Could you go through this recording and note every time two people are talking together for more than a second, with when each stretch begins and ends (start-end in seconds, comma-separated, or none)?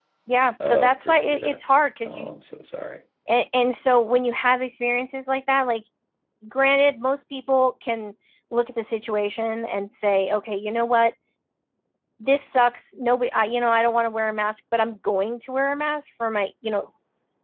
0.7-2.3